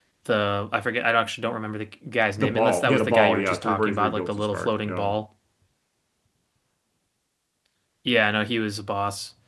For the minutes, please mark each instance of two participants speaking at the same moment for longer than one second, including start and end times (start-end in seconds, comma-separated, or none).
2.4-5.1